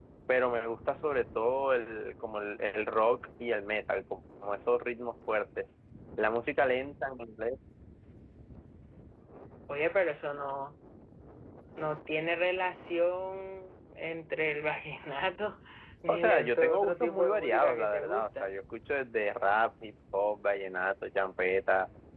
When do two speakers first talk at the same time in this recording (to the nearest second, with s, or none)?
16 s